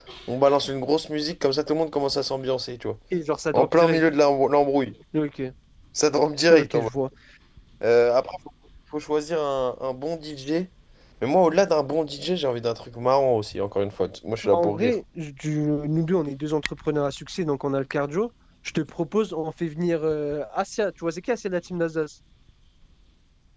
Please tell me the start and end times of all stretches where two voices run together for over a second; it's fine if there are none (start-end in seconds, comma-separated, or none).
none